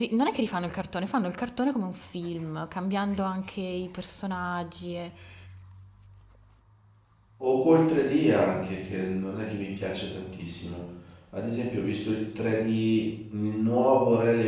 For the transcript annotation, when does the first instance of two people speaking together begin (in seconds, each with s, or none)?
none